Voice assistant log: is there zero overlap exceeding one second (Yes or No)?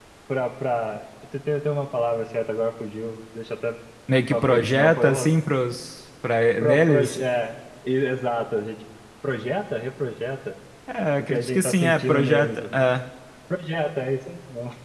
No